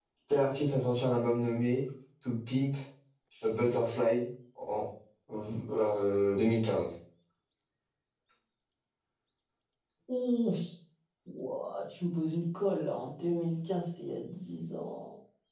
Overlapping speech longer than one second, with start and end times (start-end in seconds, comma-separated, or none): none